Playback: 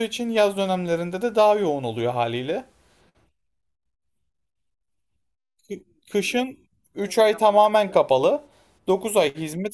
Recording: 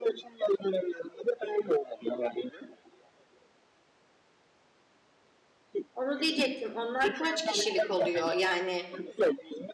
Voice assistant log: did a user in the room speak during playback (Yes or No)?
Yes